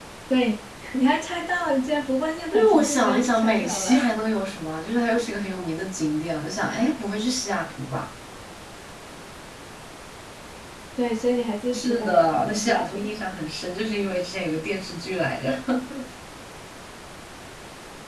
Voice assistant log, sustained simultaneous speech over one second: present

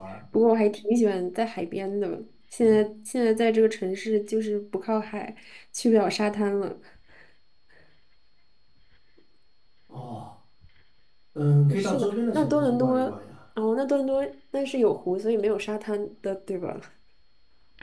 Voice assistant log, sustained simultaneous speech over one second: present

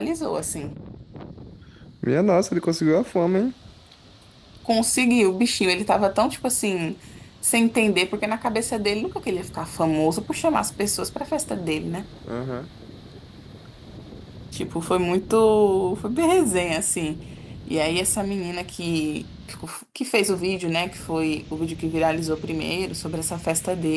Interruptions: none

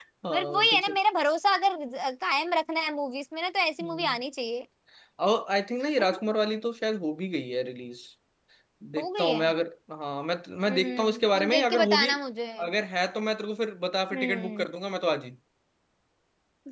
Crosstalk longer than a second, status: present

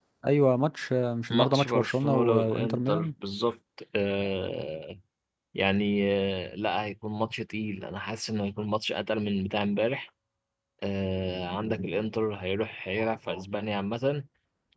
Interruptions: present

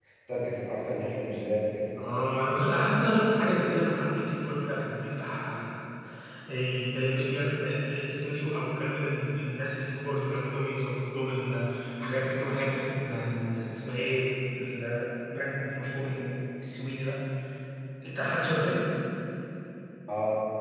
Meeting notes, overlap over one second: none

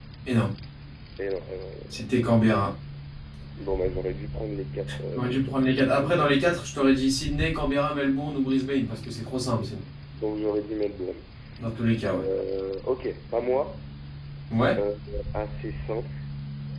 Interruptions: present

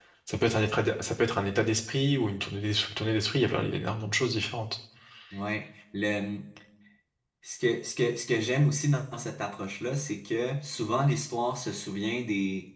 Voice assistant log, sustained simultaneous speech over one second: none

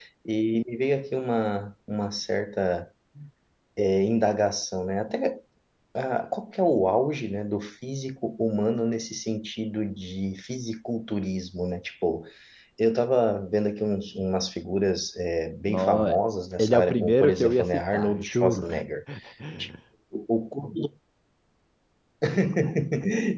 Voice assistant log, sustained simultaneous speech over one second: present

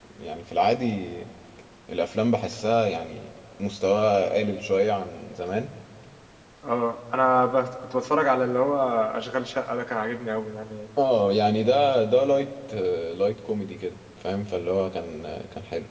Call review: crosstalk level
none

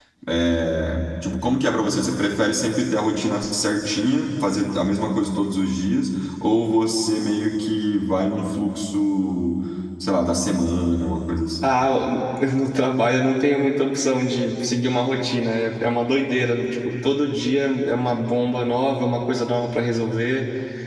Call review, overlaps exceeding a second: none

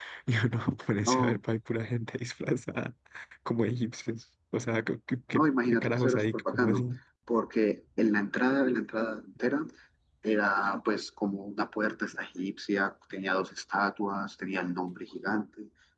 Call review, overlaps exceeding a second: present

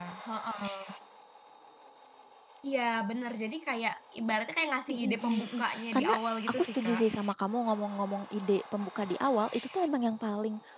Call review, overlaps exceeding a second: present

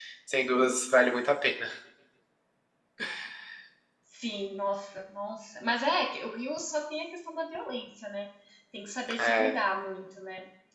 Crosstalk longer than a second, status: none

